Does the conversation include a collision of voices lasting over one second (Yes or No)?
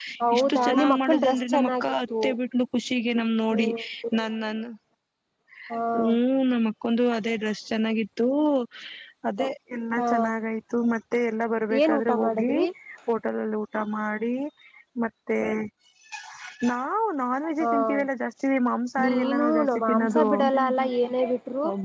Yes